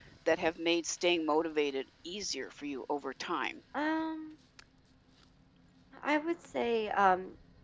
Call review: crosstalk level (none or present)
none